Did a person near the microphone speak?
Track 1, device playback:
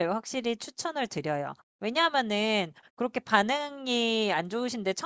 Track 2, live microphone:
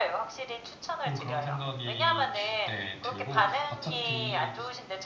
Yes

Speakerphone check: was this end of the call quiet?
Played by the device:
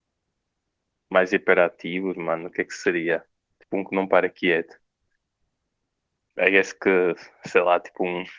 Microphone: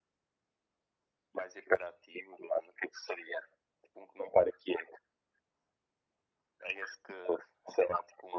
Yes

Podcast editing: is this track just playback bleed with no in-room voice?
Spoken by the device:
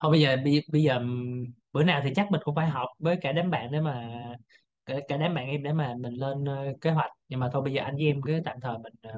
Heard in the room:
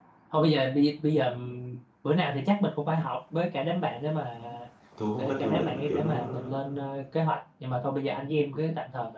No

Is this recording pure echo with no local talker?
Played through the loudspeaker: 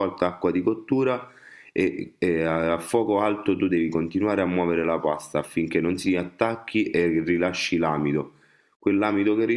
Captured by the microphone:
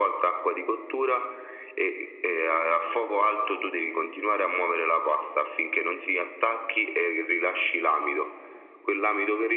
Yes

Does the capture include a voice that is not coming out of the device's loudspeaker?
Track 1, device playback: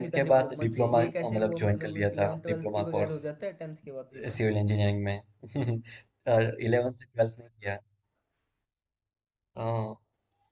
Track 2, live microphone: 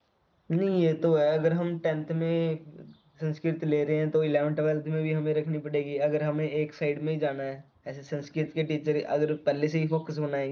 Yes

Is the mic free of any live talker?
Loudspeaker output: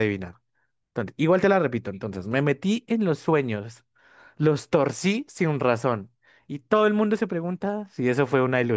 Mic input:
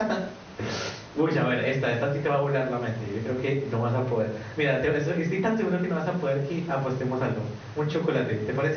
No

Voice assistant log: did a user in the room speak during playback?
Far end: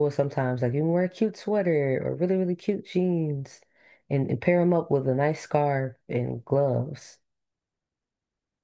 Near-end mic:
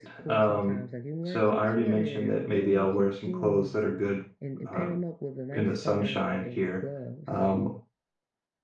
Yes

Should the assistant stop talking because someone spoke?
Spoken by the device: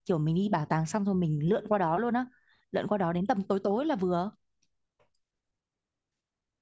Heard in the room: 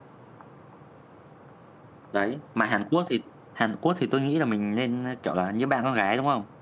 Yes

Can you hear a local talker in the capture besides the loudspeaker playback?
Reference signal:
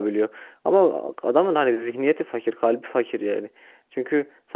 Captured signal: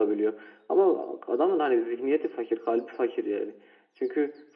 No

